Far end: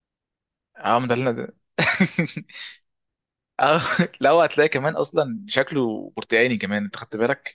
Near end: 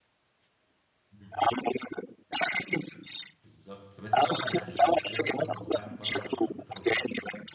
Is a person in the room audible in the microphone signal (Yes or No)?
Yes